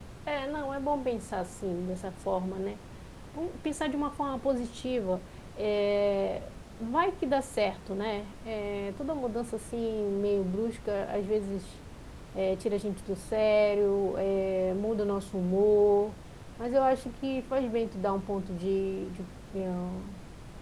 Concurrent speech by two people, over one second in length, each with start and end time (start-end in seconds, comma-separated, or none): none